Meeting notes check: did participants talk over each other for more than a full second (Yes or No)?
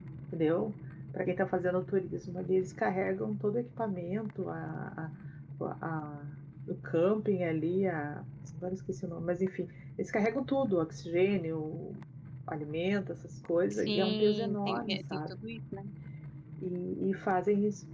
Yes